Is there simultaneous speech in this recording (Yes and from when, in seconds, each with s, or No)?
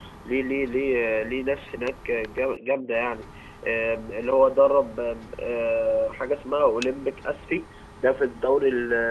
No